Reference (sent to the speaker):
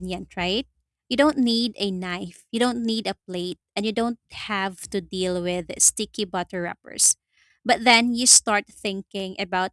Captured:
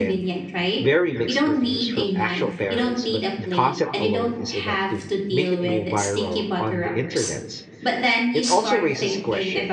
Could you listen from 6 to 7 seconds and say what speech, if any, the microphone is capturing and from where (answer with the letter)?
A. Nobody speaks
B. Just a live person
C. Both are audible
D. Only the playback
C